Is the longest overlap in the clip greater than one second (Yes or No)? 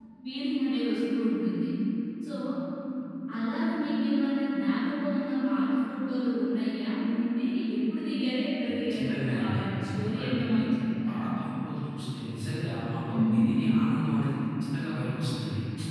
Yes